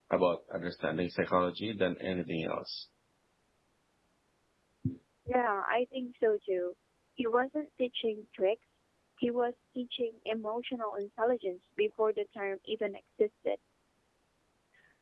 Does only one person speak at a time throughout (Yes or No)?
Yes